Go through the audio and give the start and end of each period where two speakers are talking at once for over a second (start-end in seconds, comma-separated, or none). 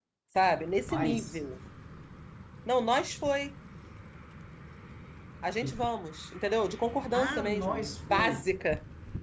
7.1-8.5